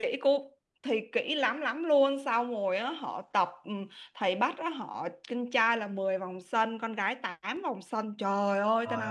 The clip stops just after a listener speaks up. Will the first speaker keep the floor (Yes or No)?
Yes